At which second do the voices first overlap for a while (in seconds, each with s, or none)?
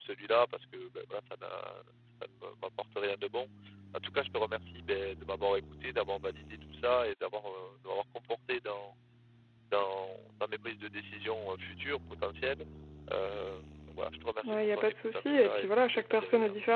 14.4 s